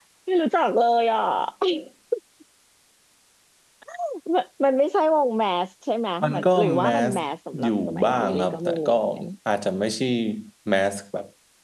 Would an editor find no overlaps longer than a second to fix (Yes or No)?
No